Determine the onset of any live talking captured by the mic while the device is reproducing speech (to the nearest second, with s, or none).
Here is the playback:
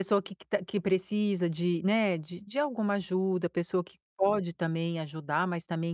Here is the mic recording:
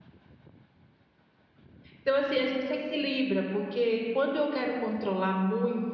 2 s